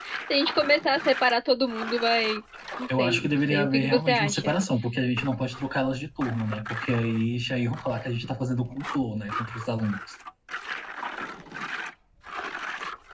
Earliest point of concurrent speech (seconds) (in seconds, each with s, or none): 2.9 s